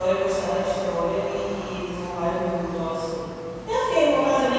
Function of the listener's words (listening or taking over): taking over